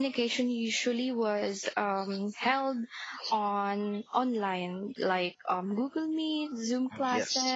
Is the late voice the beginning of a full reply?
No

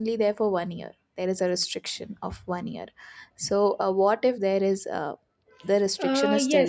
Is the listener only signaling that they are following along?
No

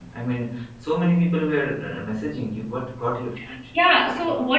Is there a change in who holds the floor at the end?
Yes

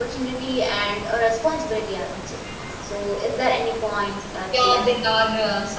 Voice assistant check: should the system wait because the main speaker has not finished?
No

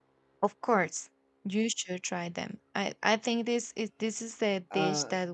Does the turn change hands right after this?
No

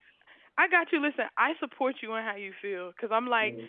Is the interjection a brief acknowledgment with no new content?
Yes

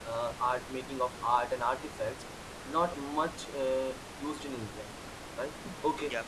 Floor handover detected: No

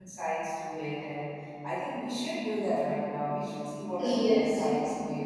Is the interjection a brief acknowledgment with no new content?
Yes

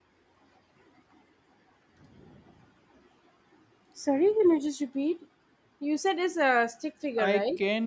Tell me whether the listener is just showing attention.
No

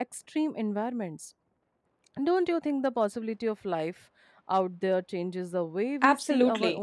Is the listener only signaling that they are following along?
No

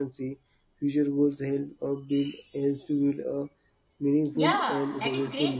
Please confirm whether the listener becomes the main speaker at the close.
Yes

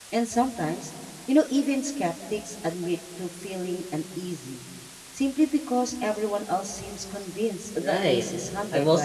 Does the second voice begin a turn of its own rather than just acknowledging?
Yes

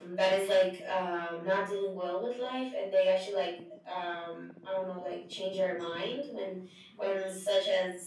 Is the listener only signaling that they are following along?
Yes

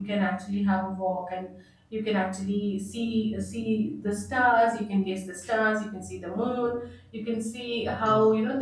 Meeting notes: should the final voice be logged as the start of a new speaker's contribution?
No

